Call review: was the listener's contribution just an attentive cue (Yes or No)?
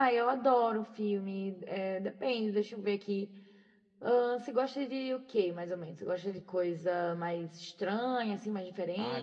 No